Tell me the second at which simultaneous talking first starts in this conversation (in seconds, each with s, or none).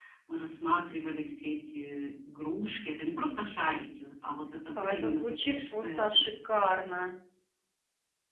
4.7 s